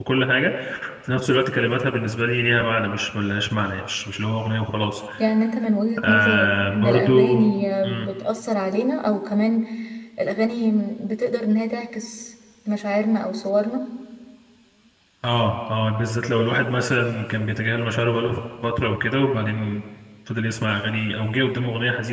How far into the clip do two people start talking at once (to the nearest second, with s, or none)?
6 s